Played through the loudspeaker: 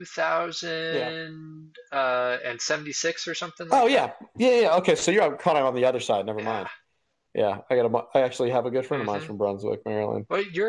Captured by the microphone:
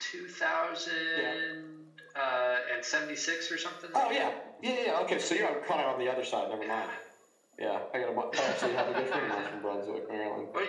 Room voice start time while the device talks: 8 s

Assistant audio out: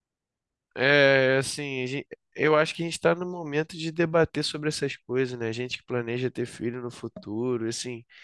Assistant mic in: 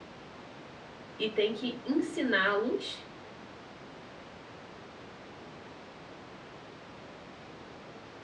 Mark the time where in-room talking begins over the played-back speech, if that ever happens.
1 s

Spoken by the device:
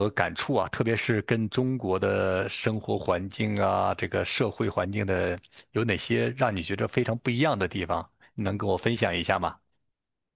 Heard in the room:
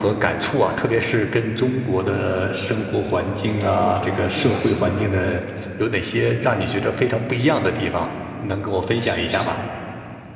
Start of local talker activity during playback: 4 s

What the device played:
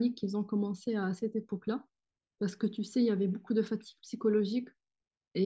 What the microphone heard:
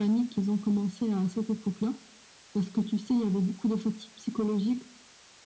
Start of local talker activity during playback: none

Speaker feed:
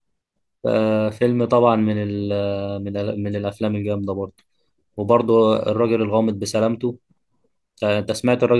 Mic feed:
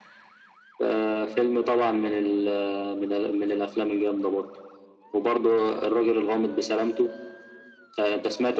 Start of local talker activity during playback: none

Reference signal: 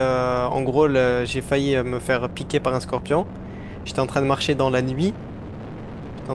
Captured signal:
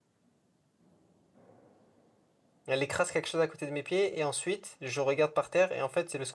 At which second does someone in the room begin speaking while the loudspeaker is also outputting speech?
3 s

